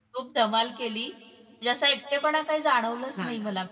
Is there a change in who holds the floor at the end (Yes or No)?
No